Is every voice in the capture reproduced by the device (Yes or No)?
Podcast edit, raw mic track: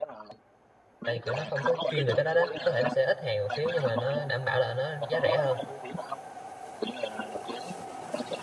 No